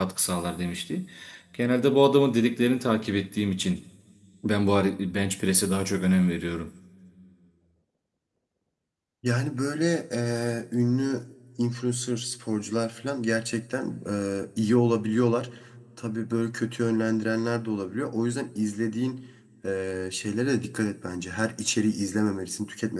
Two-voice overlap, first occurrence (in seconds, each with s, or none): none